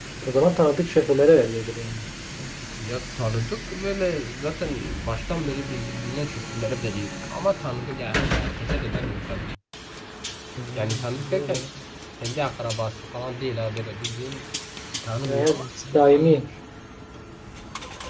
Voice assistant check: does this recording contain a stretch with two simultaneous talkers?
Yes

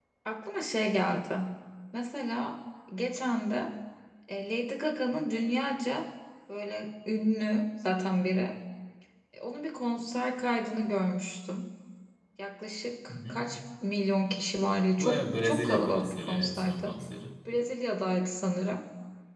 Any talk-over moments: Yes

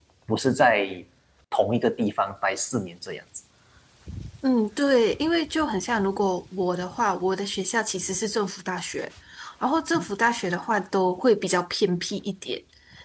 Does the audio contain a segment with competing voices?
No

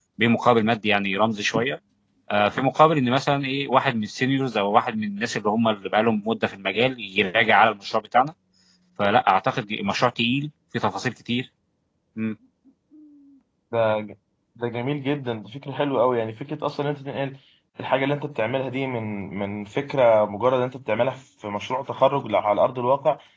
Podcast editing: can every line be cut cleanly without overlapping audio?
Yes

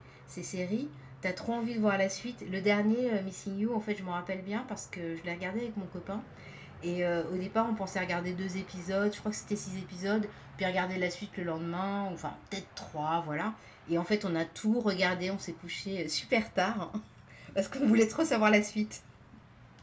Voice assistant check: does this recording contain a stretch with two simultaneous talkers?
No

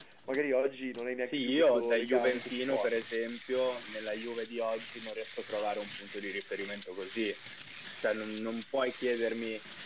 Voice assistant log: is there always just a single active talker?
No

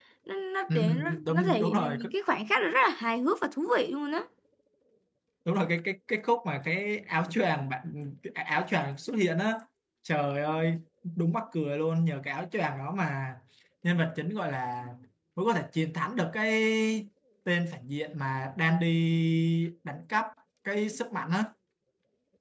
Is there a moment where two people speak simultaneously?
Yes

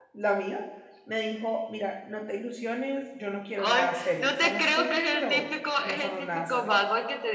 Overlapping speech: Yes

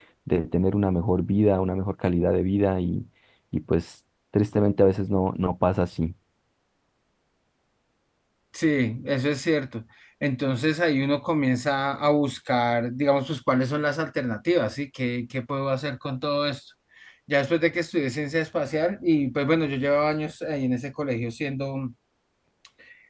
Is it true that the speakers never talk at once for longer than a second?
Yes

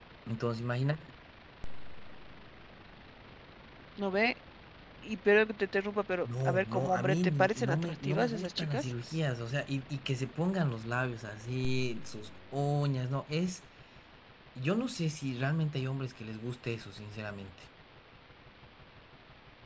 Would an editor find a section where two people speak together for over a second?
Yes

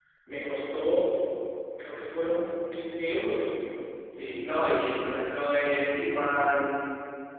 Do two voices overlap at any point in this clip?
No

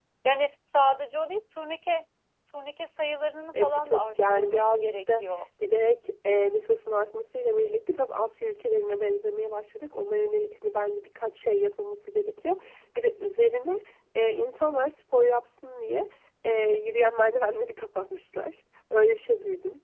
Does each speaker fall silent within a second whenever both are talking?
No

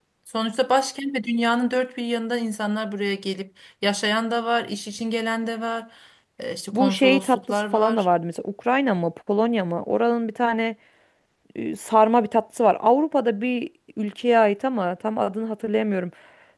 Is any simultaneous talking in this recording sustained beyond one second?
Yes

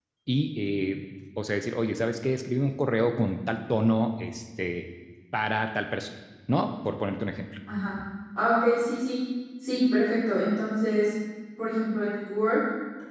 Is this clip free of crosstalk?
Yes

